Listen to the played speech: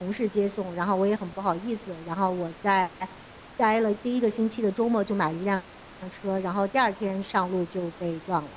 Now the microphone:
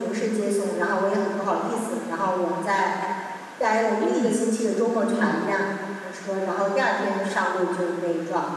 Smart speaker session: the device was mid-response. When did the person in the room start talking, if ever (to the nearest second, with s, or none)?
4 s